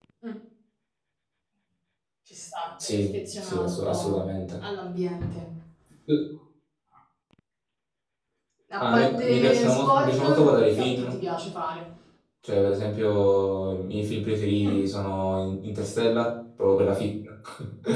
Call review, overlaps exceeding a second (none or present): present